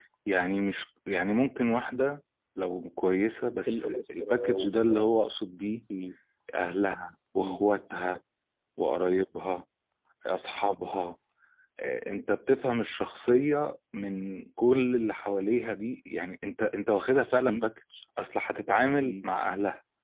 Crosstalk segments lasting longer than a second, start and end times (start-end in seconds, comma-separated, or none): 3.7-5.1